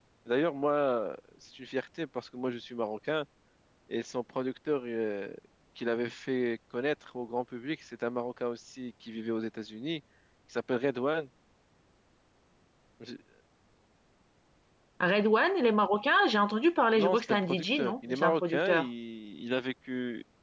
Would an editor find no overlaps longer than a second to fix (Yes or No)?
No